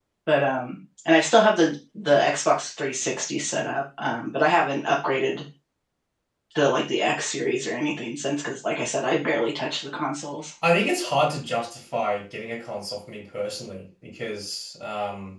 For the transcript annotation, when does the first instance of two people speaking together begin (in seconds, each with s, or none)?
none